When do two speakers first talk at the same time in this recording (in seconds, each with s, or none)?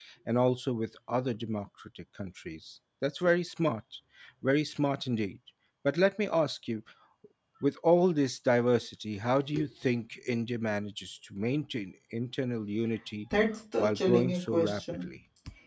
13.8 s